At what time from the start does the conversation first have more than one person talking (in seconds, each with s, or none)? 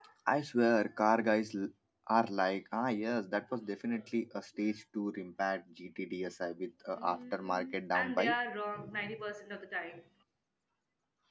7.0 s